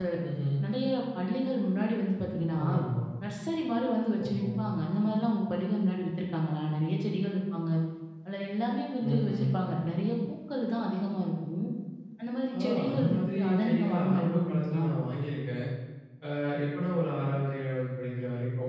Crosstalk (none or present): present